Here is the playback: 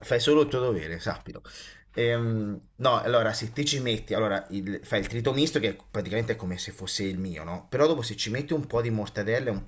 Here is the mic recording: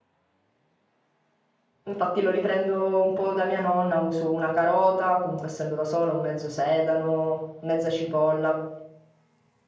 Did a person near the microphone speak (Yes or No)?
Yes